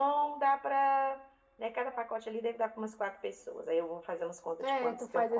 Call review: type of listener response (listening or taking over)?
taking over